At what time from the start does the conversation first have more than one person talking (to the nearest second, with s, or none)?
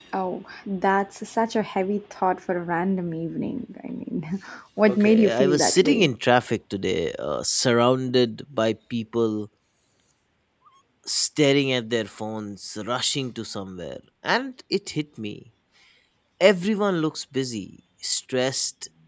5 s